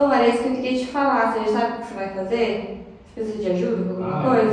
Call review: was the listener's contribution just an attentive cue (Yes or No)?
No